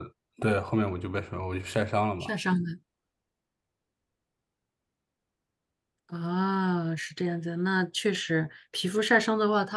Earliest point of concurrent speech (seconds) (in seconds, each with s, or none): none